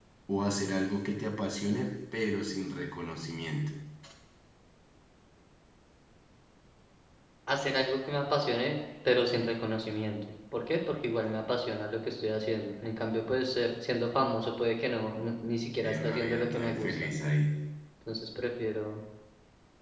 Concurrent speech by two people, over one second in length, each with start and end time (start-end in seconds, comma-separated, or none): 15.8-17.1